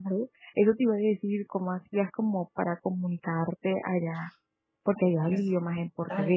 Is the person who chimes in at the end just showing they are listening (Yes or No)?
No